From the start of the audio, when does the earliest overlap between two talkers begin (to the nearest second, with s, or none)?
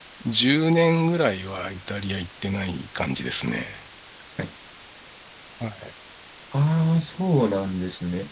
none